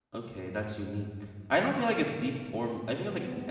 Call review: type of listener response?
taking over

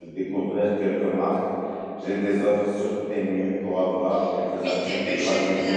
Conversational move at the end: taking over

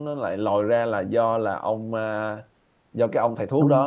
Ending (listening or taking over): listening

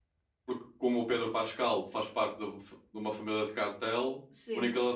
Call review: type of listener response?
listening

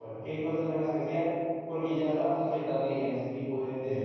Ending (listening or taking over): listening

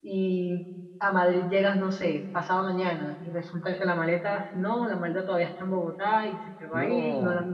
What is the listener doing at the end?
listening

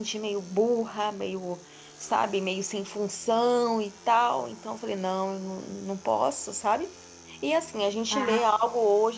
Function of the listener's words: listening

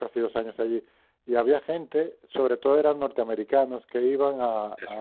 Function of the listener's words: listening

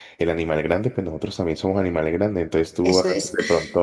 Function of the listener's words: listening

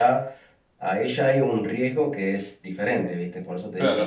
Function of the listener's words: taking over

